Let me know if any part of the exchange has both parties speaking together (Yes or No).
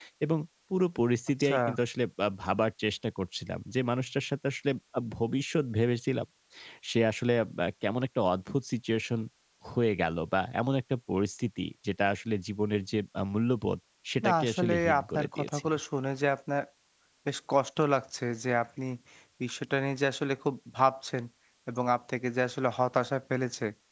Yes